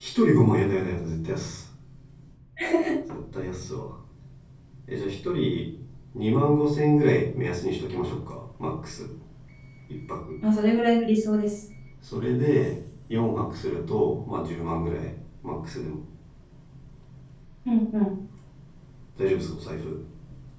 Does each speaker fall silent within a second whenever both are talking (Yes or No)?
Yes